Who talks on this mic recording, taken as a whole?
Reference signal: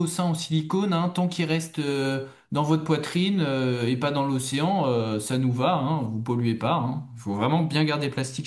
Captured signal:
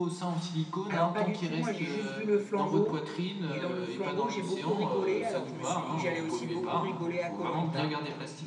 both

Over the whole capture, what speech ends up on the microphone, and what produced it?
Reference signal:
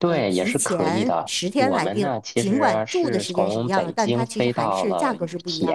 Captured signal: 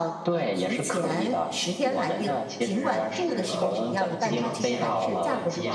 both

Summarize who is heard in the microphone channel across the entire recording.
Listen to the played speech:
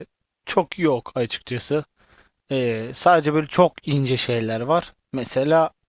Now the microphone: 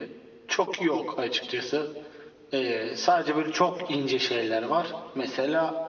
echo only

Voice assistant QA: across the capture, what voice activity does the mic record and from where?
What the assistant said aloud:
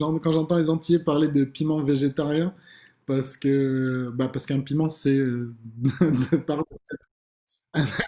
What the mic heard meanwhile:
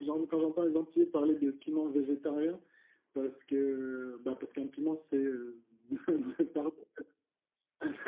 echo only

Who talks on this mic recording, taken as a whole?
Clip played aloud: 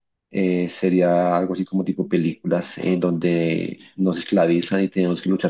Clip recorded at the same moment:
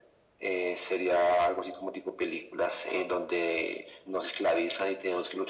echo only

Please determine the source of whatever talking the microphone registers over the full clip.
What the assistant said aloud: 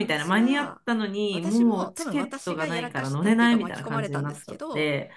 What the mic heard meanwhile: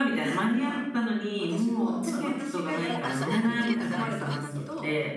both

